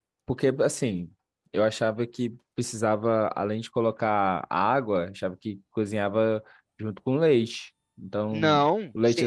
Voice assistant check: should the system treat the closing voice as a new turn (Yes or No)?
Yes